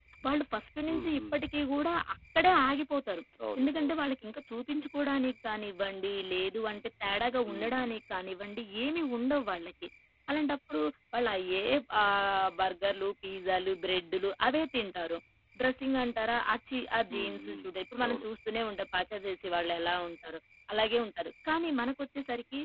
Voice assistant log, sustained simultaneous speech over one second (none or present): none